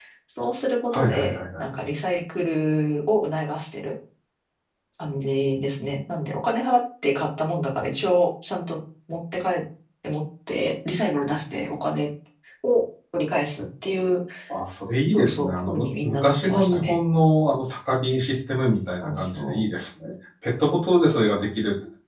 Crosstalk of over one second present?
Yes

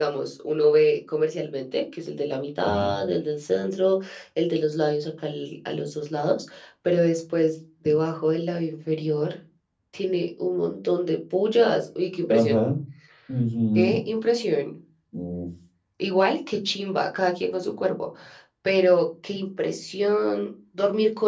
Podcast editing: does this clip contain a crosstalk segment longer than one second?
No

